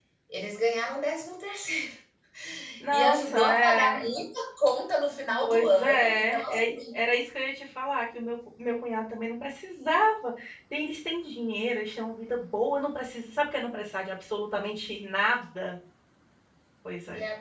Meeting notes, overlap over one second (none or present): present